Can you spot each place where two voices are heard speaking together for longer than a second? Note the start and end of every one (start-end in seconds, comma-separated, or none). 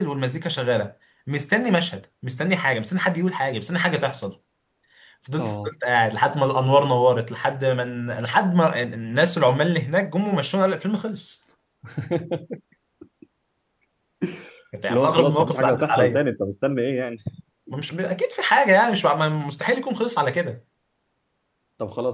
14.9-16.2